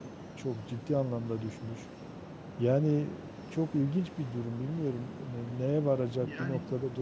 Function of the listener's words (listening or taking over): listening